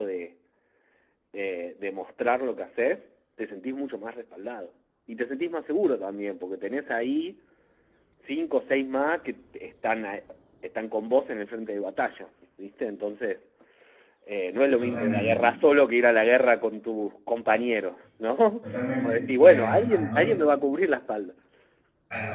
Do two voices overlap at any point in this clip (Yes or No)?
Yes